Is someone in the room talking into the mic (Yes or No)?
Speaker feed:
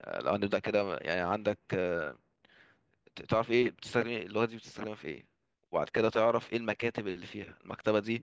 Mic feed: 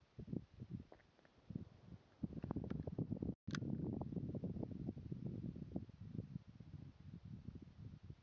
No